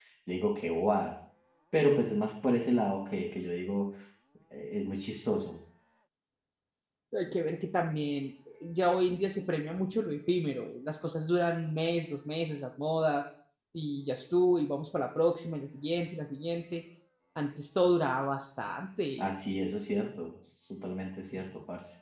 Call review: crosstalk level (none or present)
none